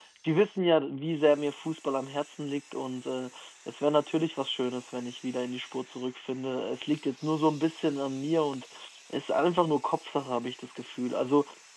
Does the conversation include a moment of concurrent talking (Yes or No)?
No